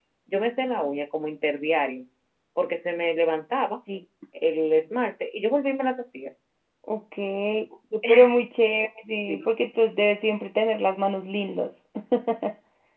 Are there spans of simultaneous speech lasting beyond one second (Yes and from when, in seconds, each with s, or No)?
No